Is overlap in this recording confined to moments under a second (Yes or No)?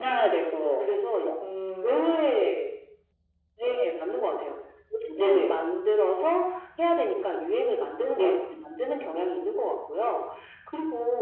Yes